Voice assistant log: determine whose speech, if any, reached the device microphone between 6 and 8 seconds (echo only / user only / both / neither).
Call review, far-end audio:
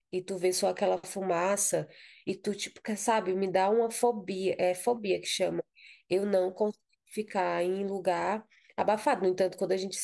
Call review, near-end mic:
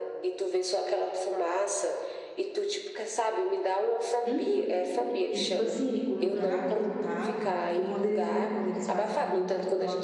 both